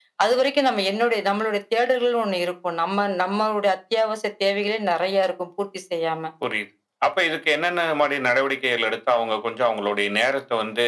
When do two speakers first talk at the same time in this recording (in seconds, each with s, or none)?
none